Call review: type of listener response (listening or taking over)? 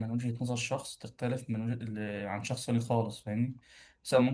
listening